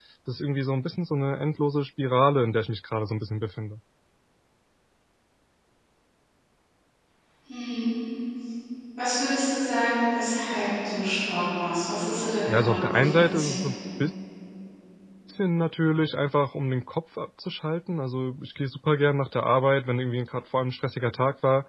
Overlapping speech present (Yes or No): Yes